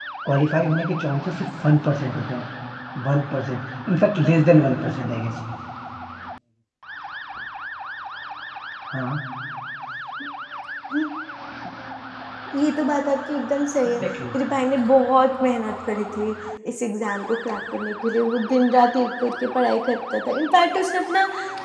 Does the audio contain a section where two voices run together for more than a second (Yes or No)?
No